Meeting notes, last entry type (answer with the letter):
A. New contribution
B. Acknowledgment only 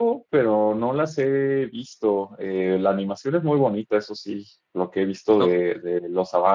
B